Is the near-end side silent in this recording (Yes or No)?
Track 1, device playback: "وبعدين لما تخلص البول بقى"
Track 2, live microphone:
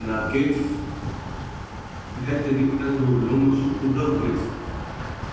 No